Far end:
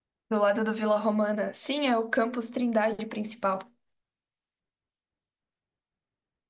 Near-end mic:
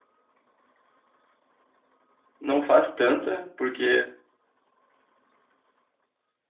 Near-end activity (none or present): present